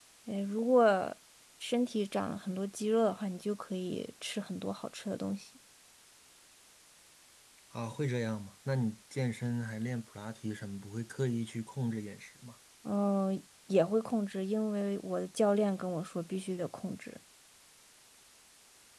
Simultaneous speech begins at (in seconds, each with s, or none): none